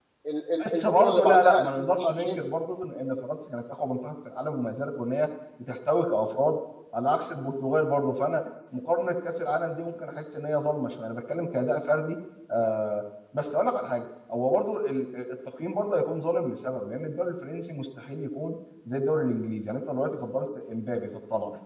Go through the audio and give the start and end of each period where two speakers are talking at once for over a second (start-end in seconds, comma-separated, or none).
0.7-2.4